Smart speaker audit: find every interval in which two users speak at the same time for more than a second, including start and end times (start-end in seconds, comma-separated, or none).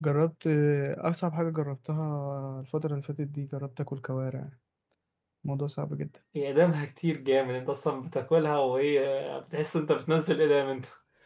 none